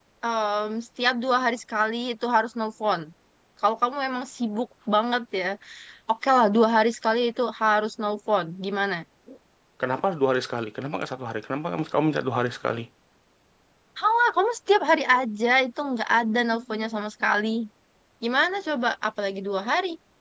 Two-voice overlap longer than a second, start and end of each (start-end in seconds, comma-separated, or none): none